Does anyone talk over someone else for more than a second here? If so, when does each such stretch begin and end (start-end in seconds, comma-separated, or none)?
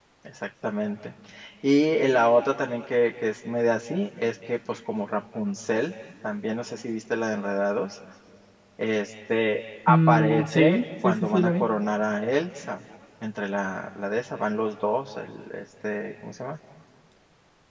9.9-11.6